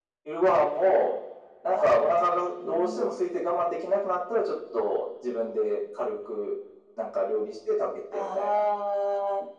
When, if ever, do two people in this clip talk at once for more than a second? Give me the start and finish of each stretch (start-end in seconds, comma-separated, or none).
1.7-3.1